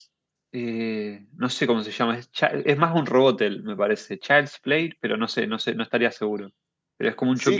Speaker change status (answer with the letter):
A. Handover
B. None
A